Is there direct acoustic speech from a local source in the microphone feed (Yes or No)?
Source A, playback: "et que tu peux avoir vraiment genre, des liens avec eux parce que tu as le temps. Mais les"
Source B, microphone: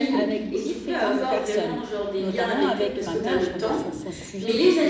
Yes